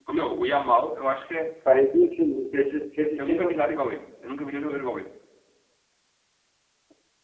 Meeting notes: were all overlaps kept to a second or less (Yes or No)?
Yes